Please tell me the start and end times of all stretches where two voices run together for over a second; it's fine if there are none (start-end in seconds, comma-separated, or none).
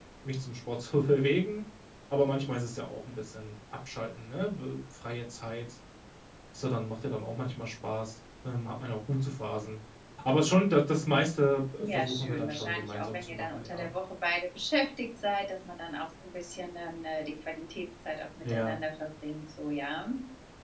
11.8-13.9